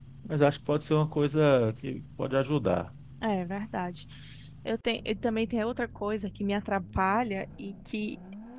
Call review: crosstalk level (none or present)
none